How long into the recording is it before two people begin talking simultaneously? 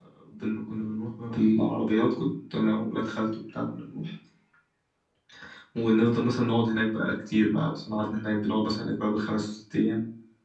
none

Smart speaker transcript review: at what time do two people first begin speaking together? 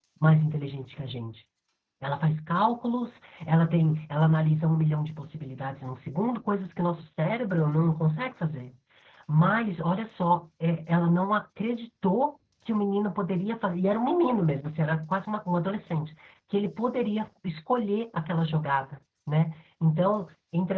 none

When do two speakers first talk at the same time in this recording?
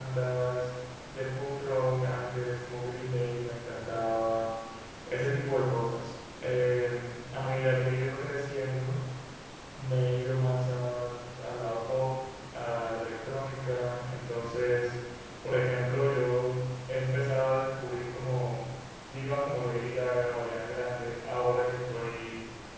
none

